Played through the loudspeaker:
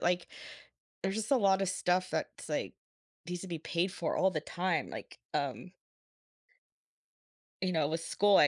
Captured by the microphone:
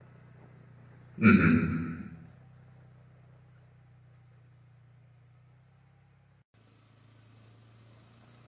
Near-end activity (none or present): present